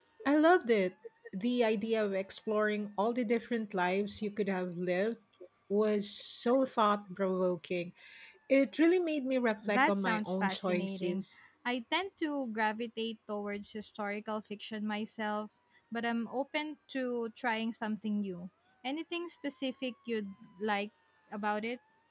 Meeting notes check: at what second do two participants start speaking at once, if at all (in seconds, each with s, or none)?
9.6 s